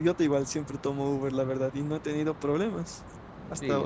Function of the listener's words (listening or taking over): taking over